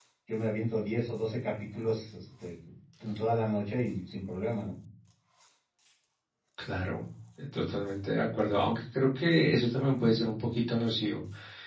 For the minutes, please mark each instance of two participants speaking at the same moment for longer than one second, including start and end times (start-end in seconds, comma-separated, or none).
none